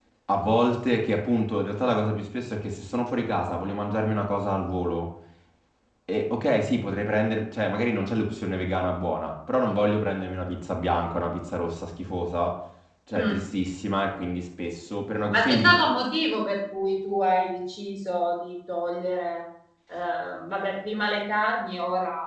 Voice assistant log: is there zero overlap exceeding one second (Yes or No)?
Yes